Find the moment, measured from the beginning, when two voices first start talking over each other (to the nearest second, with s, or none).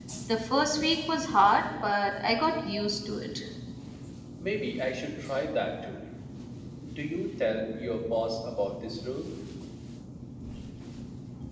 none